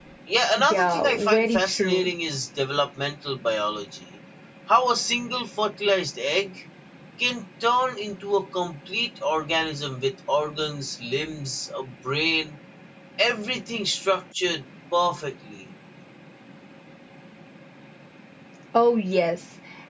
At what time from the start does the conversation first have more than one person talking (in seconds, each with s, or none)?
0.7 s